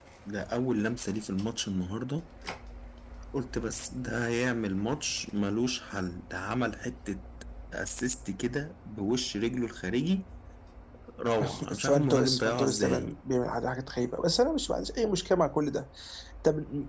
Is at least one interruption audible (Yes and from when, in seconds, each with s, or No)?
Yes, from 11.5 s